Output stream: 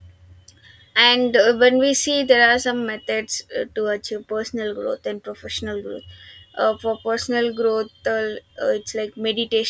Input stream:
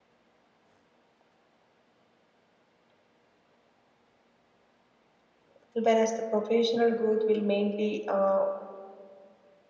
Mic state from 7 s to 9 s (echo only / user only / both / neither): user only